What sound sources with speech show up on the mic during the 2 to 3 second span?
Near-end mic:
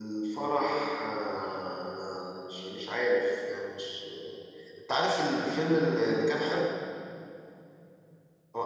echo only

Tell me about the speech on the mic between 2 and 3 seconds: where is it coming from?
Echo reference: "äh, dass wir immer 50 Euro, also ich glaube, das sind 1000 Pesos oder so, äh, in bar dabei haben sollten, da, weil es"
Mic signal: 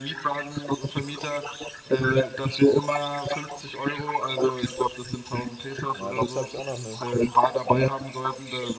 echo only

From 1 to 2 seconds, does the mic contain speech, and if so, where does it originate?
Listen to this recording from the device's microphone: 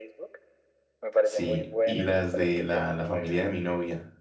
both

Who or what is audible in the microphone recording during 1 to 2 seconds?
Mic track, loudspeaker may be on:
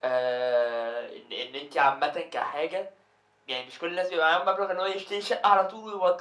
echo only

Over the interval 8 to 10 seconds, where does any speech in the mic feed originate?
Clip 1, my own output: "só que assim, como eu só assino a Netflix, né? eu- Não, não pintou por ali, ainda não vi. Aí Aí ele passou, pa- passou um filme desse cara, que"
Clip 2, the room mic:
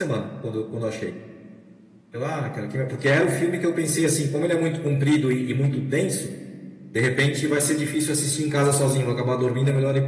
user only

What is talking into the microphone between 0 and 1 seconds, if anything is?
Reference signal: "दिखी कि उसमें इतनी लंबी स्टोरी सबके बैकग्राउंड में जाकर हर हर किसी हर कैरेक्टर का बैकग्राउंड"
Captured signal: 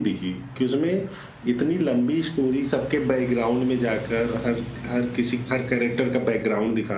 echo only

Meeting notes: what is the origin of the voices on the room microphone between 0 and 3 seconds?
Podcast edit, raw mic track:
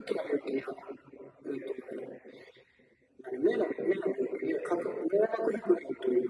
echo only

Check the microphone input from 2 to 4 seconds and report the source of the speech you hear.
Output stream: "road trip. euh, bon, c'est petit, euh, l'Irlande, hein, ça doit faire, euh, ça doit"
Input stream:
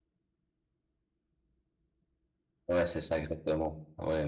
user only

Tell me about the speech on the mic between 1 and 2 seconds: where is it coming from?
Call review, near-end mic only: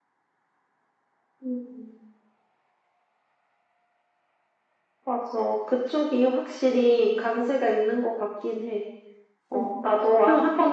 echo only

